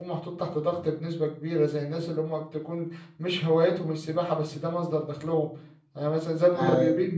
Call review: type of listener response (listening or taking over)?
listening